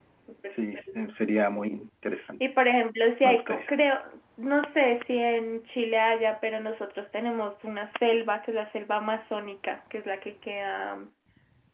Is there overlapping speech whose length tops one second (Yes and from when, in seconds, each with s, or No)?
No